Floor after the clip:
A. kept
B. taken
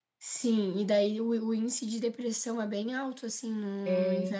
A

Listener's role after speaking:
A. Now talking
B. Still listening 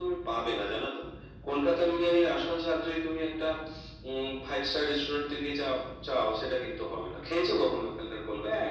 A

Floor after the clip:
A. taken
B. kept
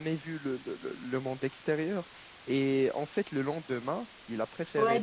A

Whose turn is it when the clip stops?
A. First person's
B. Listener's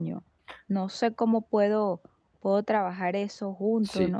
B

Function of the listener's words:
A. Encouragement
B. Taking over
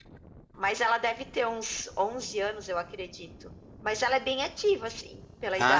B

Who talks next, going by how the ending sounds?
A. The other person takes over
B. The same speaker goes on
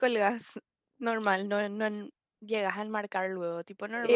A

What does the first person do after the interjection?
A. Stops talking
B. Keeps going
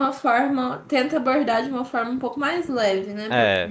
A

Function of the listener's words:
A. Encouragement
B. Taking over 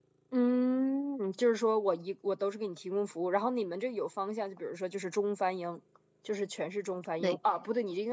A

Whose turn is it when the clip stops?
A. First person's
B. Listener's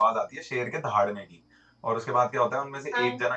A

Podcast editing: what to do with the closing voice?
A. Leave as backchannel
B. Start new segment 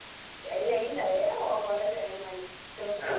B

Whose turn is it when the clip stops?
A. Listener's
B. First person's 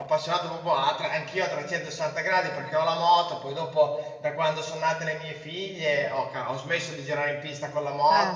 B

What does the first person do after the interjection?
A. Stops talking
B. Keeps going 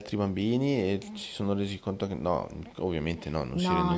A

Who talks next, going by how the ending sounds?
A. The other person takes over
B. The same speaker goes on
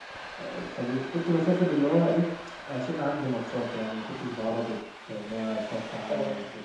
A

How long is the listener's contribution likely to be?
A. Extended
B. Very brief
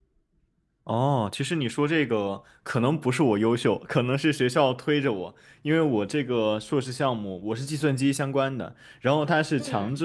B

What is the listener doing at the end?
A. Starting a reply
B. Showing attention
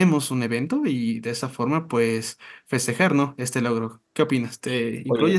A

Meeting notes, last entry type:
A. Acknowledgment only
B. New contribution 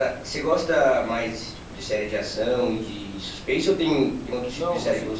B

